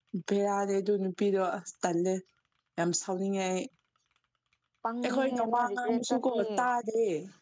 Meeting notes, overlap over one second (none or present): present